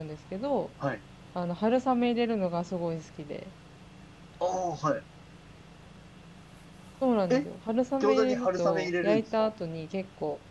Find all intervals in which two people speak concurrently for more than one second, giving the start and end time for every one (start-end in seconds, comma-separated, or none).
8.0-9.4